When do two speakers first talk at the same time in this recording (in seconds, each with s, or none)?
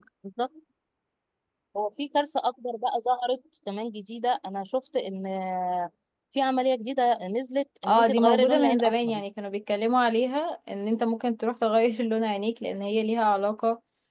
7.8 s